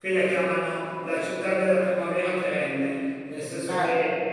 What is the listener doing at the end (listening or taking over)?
listening